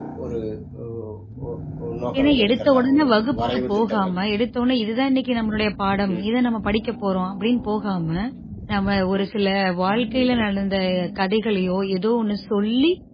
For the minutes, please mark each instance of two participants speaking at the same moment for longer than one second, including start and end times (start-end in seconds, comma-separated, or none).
2.2-4.1